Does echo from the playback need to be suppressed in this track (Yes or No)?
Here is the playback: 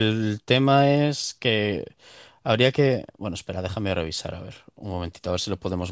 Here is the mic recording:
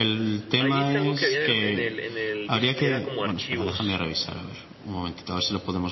Yes